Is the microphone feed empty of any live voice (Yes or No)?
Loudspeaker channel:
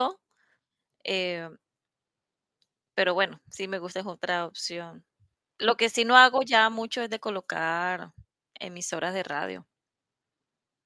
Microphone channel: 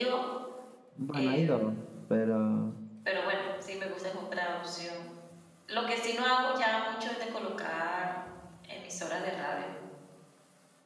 No